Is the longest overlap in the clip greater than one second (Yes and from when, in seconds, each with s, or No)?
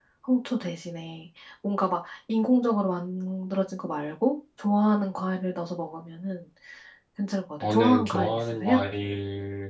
Yes, from 7.6 s